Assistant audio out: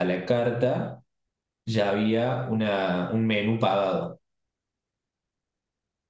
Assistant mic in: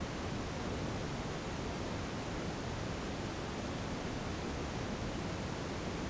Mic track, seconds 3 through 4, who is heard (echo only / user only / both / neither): neither